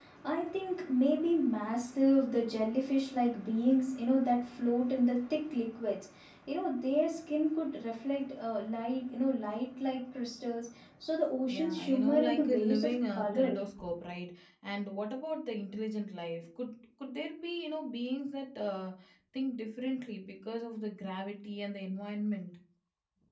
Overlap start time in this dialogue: 11.5 s

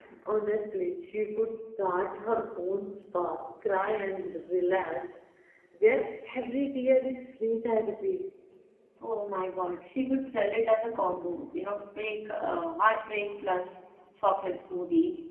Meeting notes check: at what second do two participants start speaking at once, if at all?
none

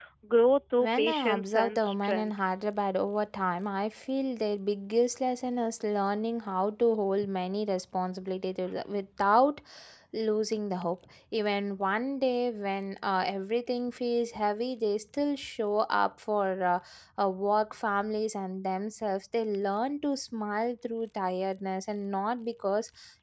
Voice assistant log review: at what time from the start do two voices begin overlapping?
0.8 s

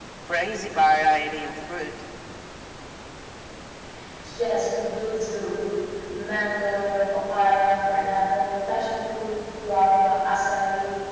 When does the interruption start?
none

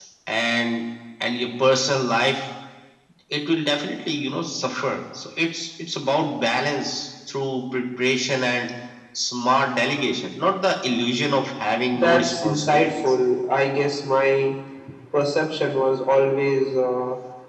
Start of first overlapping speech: 11.9 s

